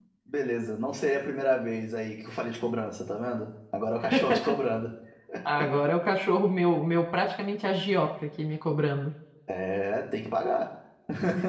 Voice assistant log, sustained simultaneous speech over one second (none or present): none